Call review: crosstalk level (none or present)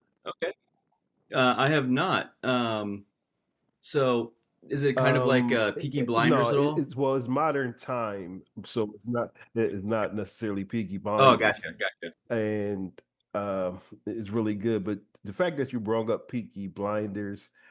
present